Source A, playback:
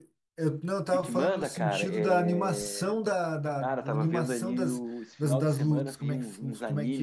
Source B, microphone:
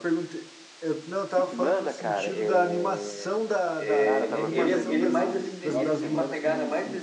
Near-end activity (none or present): present